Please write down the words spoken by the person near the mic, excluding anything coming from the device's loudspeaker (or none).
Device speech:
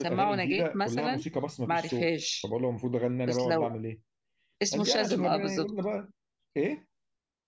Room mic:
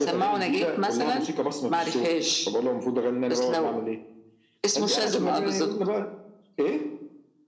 none